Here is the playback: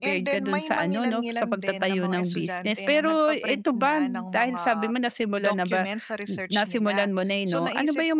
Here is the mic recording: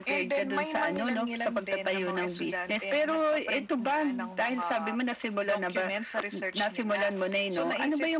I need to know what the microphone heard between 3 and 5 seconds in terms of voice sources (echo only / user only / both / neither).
echo only